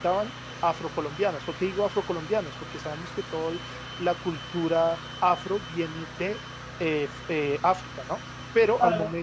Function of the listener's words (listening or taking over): taking over